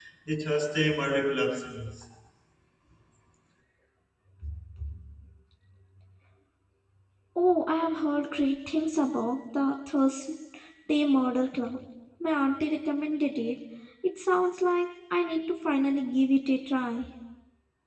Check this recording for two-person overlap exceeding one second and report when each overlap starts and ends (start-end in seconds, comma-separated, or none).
none